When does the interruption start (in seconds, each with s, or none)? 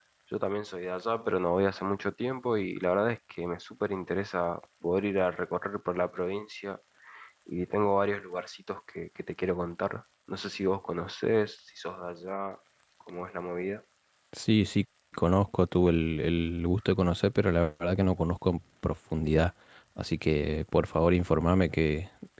none